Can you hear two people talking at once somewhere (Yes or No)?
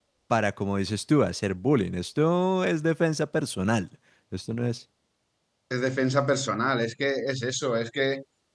No